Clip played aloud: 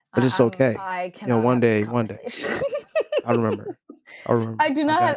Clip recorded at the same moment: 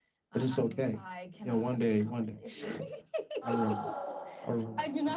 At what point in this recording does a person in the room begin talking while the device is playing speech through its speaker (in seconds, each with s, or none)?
3.4 s